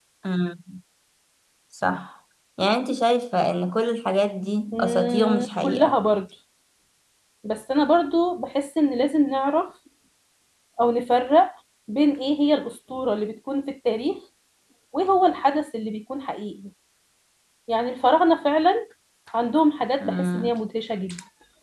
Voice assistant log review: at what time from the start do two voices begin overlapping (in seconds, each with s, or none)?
4.7 s